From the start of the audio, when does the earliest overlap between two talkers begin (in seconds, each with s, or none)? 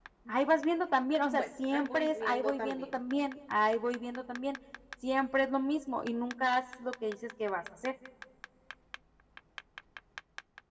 1.3 s